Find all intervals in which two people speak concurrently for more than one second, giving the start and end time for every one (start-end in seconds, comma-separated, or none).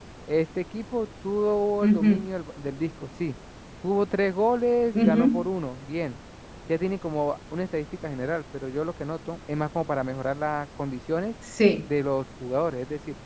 none